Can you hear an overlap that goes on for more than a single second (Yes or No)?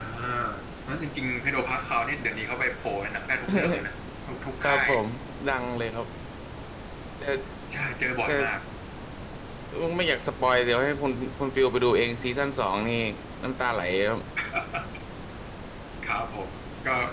No